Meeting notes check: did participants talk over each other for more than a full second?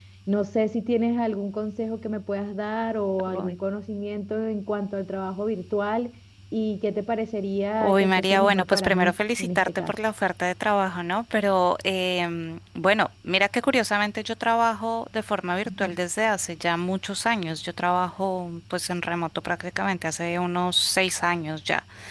Yes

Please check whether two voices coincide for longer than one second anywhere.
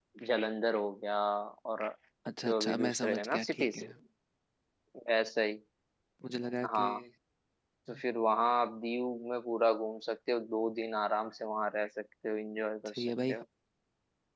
Yes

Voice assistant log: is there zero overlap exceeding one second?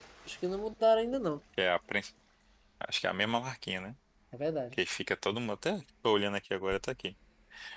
Yes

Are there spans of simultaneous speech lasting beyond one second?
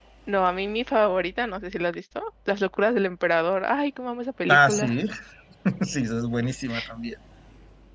No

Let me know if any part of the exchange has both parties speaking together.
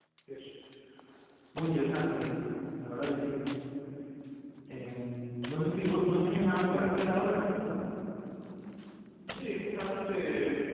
No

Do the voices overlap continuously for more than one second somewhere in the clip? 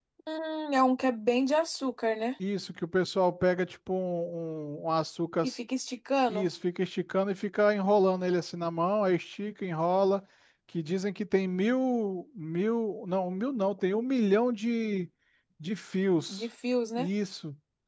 No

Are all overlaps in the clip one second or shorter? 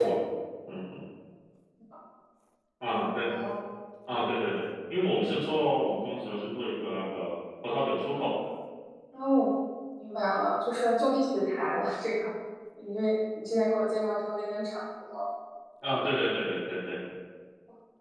Yes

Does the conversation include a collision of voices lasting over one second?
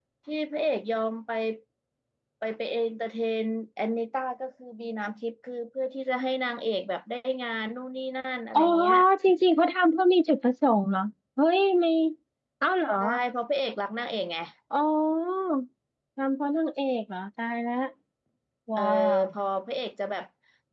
No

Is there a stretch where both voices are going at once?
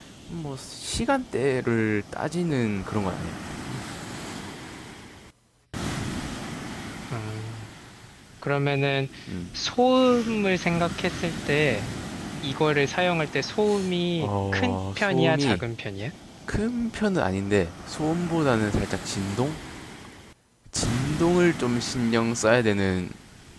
Yes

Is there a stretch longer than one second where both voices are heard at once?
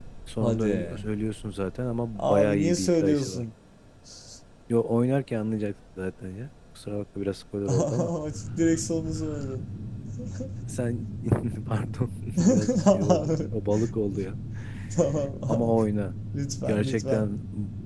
Yes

